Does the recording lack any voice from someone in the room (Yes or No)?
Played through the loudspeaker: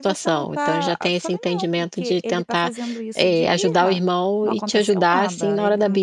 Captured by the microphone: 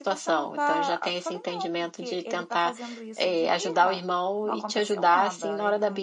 Yes